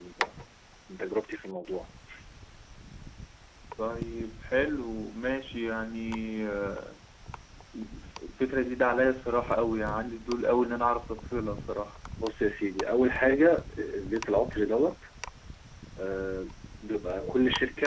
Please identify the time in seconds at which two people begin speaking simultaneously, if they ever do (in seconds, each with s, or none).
none